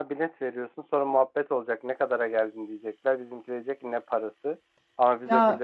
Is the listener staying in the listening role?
Yes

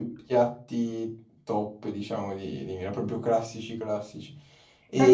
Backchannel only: No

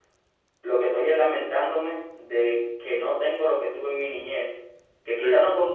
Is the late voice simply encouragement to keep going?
Yes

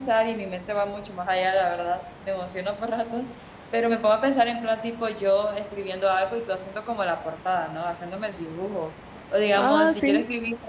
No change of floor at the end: Yes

